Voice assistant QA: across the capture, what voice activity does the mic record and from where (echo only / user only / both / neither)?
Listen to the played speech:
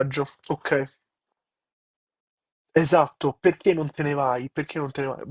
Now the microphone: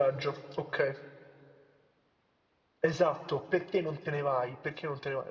echo only